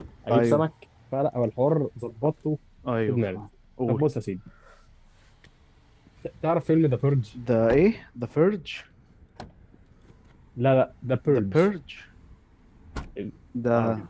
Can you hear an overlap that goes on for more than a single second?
No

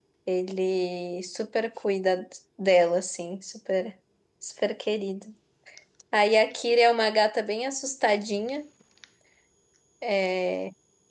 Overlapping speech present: No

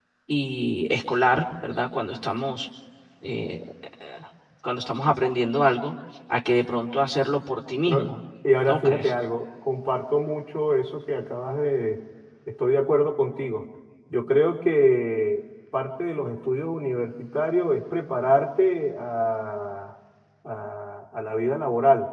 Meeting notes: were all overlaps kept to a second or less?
Yes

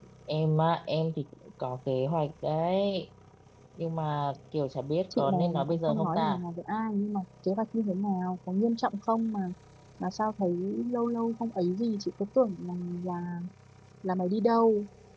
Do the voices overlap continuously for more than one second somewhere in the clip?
Yes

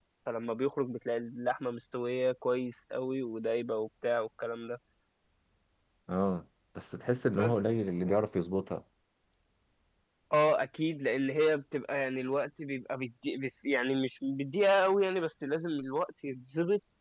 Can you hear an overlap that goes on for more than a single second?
No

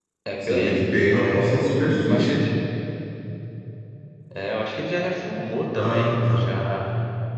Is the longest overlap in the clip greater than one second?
Yes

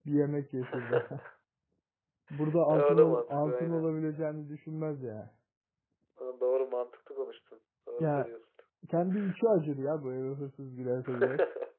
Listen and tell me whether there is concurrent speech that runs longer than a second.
Yes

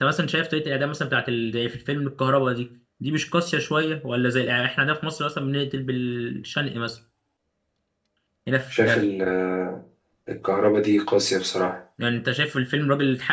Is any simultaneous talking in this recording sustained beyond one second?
No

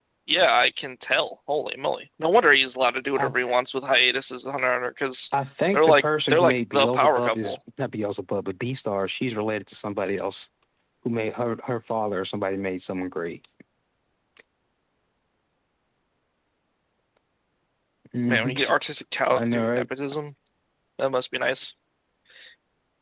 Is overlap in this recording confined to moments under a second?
No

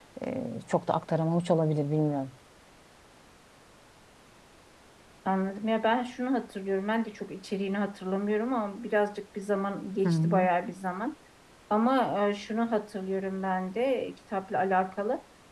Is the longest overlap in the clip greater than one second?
No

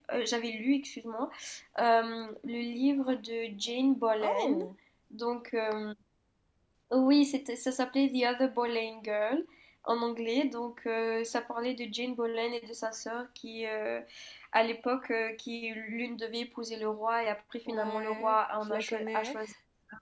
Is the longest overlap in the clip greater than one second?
Yes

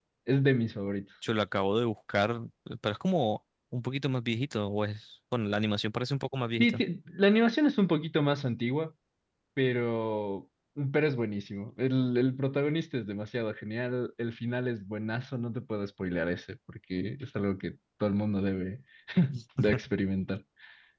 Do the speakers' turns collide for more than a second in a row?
No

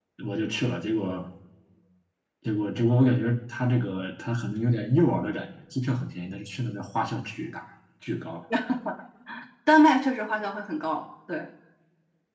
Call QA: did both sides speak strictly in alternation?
Yes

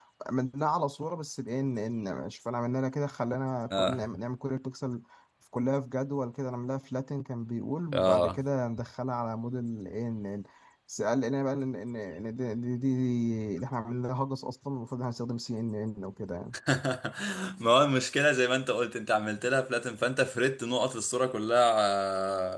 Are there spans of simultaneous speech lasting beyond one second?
No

